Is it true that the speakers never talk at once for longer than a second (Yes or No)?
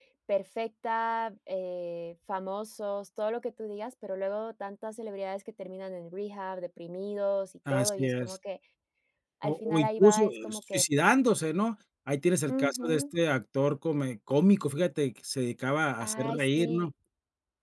No